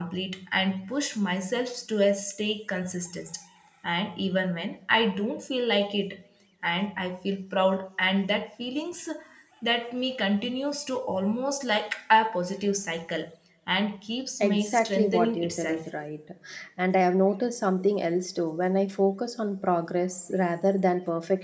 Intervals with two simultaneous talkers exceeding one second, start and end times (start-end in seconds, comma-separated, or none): 14.4-15.8